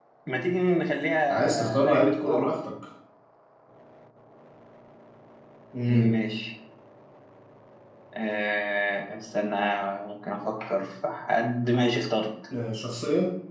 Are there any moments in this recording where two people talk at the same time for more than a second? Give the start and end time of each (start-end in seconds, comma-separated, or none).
1.3-2.5